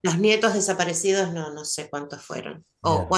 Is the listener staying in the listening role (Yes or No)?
Yes